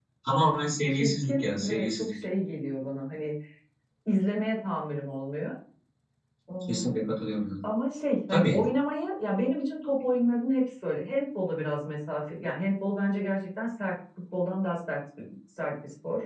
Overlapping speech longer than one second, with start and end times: 0.9-2.2

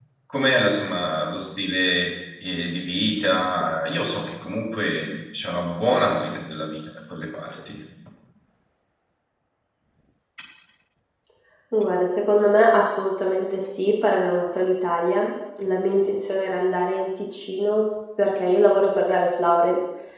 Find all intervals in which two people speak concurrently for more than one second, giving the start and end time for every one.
none

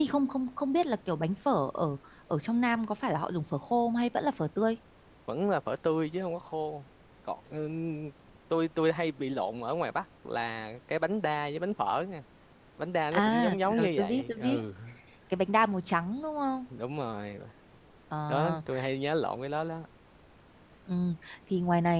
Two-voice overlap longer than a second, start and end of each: 13.1-14.6

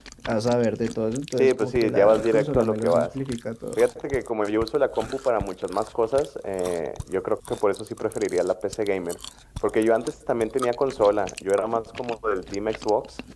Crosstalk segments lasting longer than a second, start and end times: 1.4-3.1

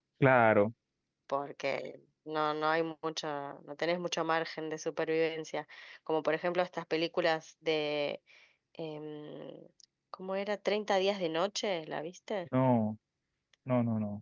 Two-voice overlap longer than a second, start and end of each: none

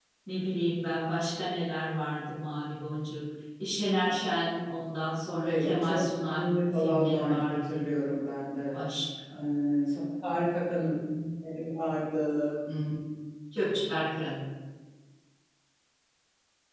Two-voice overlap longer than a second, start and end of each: 5.5-8.1

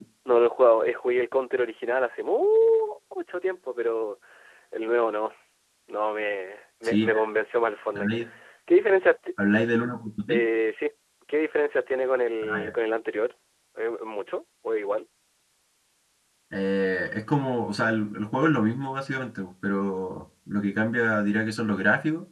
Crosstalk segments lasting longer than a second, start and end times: none

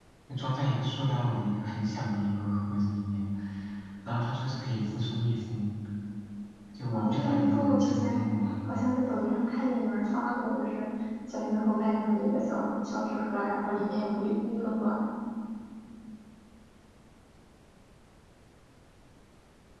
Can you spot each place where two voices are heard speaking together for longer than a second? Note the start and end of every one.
6.9-8.2

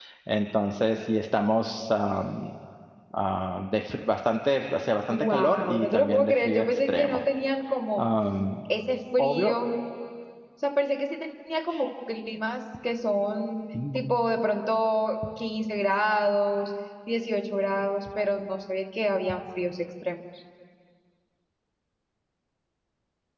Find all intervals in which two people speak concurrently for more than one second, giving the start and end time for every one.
5.1-7.2

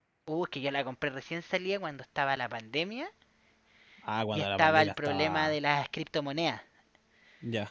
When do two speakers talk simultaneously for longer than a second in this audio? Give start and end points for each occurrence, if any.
4.3-5.6

